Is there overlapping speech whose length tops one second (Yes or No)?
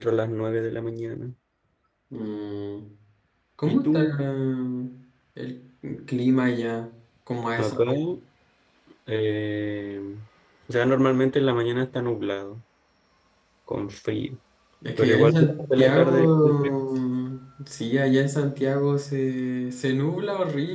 Yes